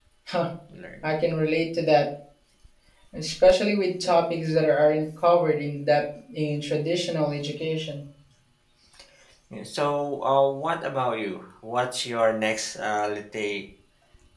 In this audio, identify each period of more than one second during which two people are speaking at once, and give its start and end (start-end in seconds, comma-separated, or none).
none